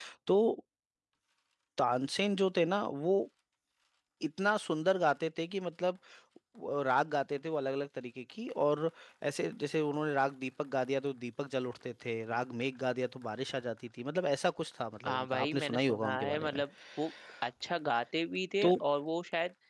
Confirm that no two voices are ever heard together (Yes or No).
No